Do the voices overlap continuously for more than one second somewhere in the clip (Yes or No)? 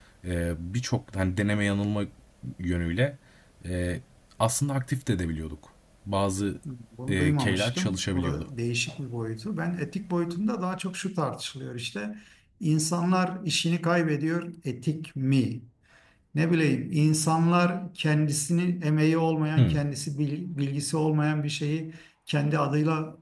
Yes